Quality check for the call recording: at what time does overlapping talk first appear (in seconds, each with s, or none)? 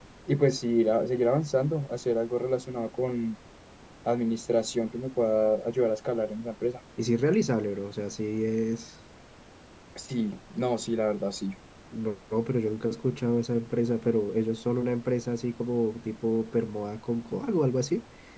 none